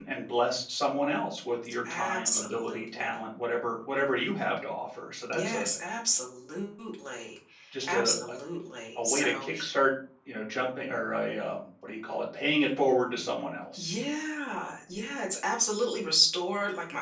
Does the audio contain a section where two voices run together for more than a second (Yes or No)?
Yes